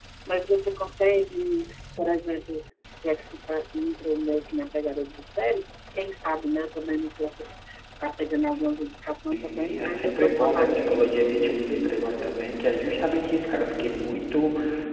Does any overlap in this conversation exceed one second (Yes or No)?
Yes